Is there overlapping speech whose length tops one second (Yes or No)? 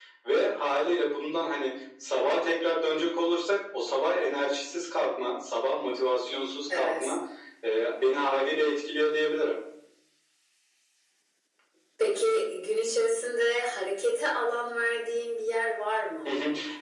No